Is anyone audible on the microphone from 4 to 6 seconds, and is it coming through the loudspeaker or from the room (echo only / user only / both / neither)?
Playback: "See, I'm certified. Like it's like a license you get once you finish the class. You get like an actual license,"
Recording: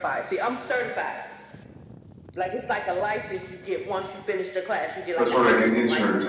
both